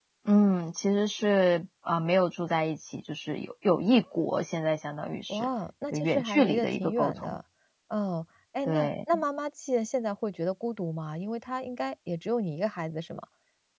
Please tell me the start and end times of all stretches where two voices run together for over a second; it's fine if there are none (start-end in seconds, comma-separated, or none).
5.9-7.3